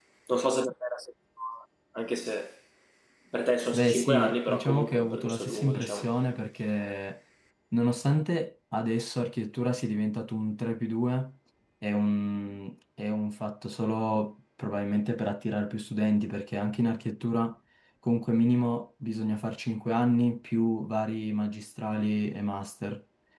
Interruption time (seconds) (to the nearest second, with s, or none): 4 s